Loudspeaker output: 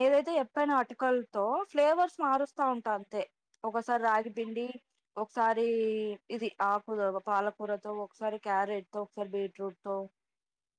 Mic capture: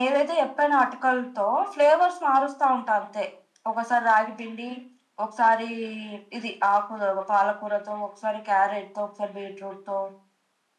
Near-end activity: none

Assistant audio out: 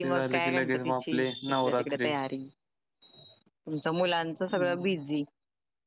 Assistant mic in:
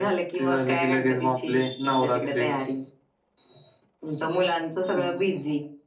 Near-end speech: none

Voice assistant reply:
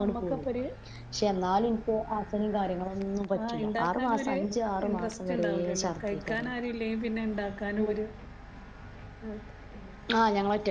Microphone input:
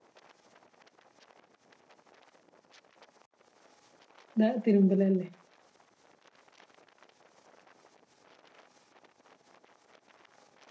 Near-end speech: present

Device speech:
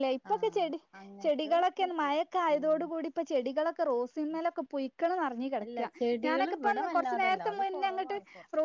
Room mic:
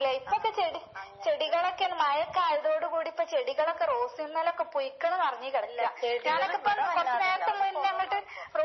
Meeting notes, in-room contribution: none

